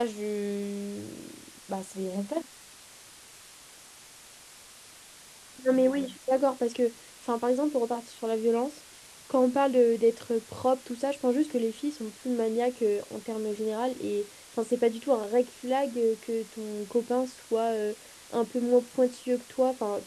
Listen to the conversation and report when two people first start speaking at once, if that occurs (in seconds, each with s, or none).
none